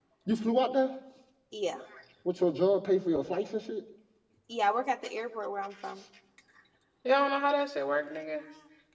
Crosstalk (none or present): none